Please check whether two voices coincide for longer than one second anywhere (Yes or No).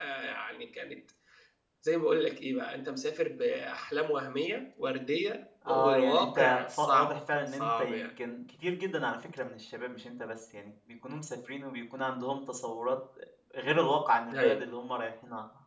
Yes